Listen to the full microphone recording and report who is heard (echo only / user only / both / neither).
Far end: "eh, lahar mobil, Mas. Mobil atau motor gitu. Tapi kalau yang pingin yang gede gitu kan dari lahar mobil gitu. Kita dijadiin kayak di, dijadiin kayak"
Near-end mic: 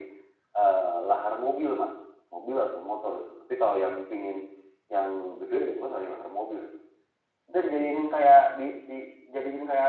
echo only